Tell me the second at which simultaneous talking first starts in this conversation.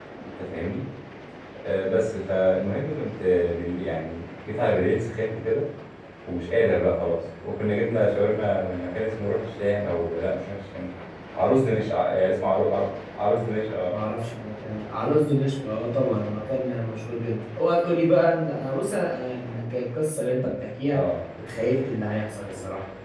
none

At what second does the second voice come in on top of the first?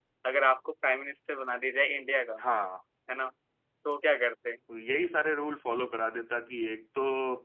none

